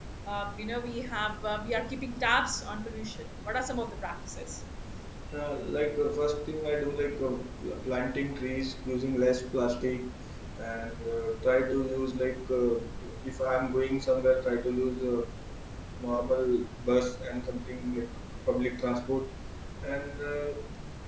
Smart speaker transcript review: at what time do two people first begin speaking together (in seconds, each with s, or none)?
none